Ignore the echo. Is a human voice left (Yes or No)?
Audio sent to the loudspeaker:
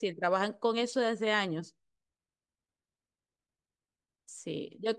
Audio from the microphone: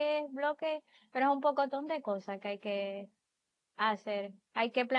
Yes